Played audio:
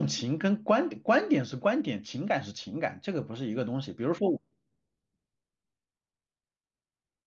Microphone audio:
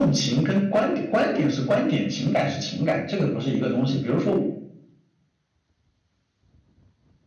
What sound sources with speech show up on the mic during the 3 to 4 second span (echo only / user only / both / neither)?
echo only